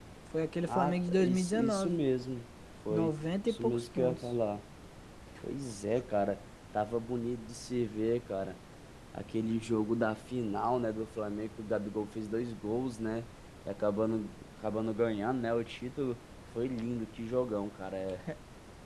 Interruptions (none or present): present